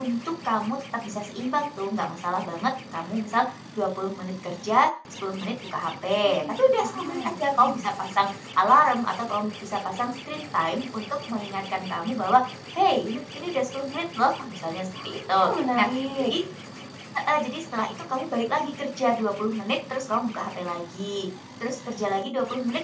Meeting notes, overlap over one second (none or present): present